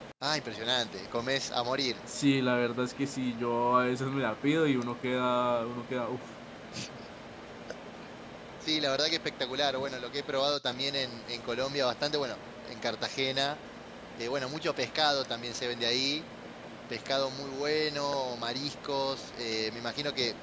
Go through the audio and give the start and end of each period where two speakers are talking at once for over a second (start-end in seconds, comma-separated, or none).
none